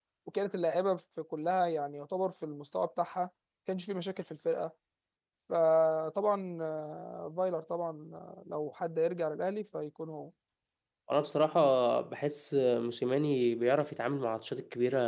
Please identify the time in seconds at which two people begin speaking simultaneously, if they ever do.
none

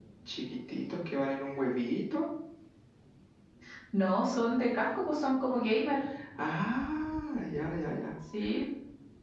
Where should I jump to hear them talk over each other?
none

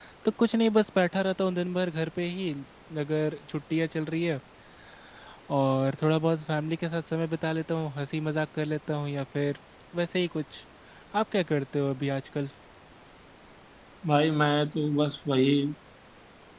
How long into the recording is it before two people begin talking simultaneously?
none

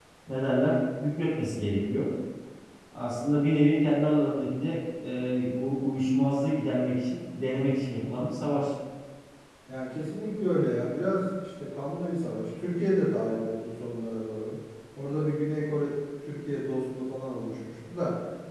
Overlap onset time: none

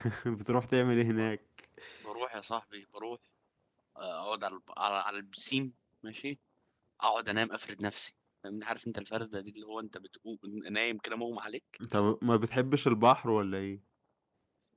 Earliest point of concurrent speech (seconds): none

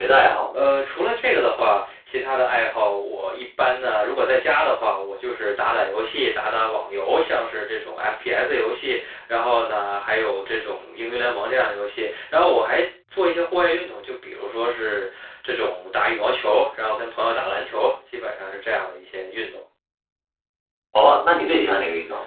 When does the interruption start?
none

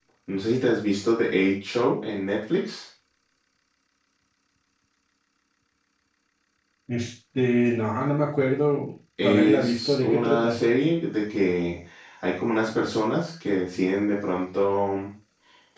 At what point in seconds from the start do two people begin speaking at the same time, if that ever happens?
9.2 s

